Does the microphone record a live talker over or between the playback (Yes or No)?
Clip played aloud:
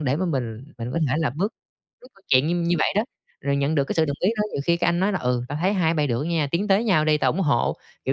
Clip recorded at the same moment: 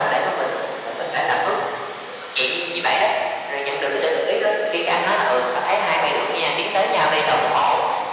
No